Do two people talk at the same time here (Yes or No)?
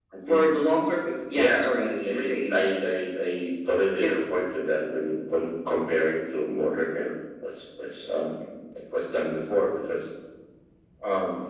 Yes